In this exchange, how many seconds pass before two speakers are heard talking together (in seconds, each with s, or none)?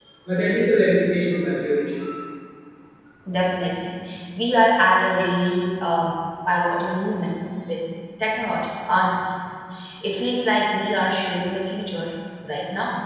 none